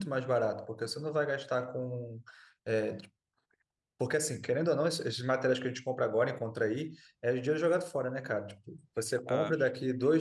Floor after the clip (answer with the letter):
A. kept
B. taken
A